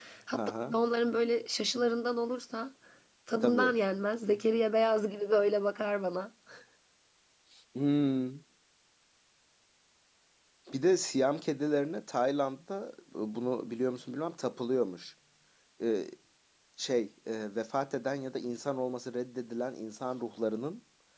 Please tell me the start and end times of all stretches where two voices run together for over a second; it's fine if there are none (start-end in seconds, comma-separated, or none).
none